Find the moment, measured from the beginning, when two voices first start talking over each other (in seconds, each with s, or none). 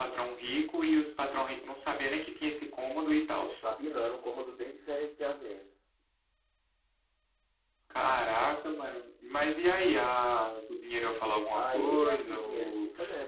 11.5 s